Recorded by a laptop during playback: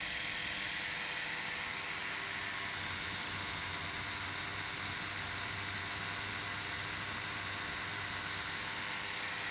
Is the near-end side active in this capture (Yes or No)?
No